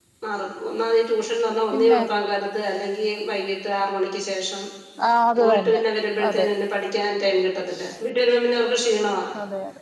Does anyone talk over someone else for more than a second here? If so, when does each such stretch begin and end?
none

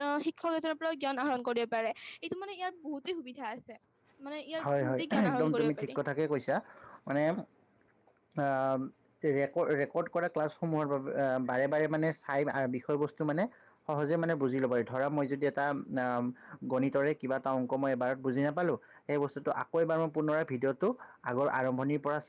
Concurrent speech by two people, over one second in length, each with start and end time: 4.6-6.0

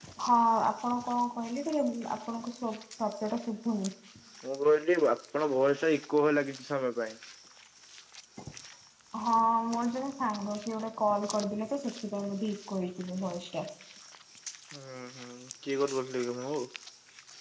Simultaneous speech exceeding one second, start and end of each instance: none

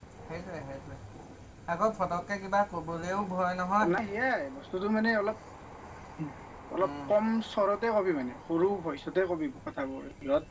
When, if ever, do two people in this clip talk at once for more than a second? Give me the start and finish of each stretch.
none

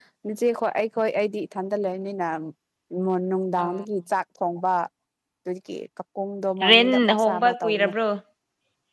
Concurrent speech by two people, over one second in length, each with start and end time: 6.7-7.9

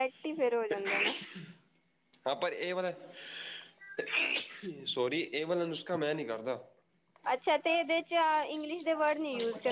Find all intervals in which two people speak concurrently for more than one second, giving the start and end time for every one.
none

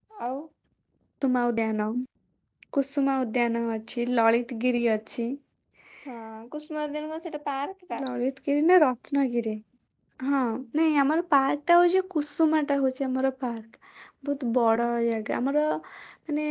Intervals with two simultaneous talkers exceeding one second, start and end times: none

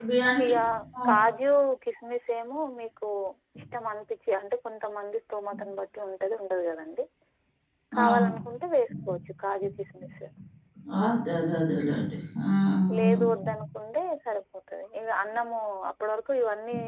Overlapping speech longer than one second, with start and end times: none

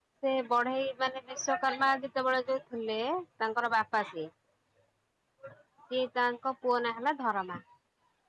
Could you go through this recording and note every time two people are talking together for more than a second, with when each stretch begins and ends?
none

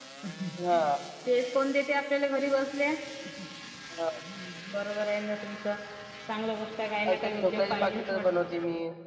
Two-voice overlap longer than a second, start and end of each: 7.1-8.4

